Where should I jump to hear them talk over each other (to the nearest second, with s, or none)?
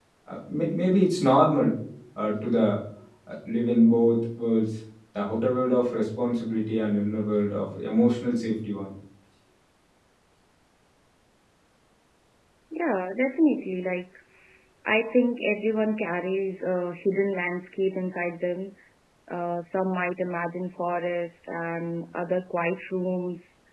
none